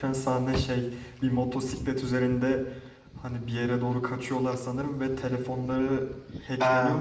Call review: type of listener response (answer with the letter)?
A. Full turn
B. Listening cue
A